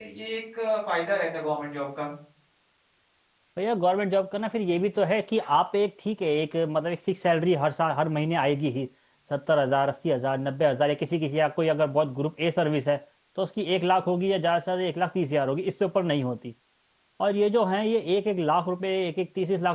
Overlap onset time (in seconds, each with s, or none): none